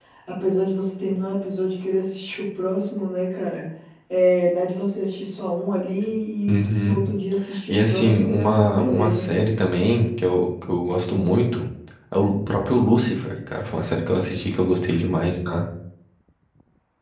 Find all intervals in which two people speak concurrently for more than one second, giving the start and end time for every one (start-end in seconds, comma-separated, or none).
7.7-9.4